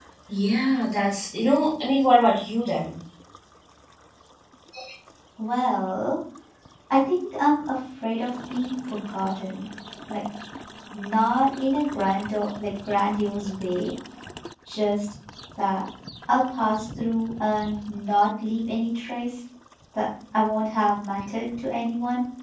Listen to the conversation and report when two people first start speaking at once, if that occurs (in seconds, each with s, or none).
none